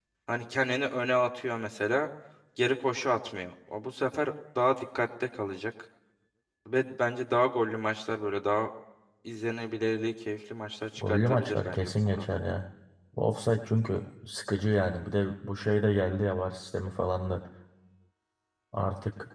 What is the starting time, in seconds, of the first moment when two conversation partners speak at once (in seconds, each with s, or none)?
11.0 s